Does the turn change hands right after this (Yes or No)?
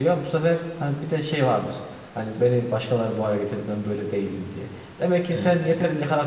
No